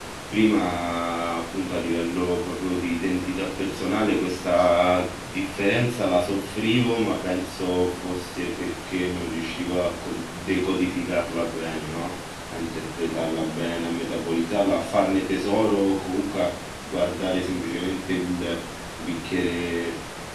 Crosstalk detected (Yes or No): No